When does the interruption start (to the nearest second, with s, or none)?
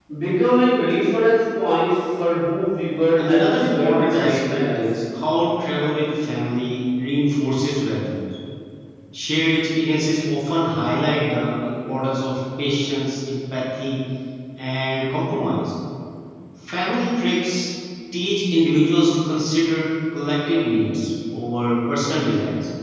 3 s